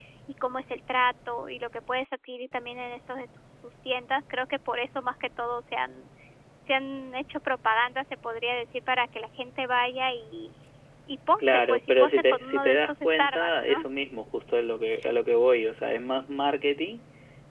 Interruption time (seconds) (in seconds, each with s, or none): 11.4 s